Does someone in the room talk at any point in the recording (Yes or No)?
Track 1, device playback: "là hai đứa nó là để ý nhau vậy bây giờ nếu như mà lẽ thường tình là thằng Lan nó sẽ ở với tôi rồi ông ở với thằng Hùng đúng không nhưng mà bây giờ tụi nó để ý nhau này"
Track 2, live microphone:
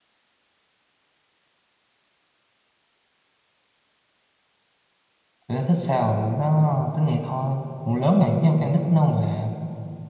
Yes